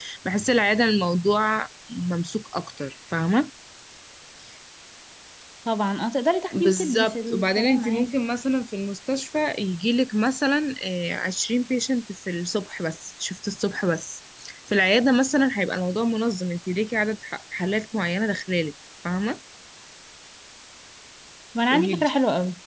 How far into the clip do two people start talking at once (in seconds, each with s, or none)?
6.5 s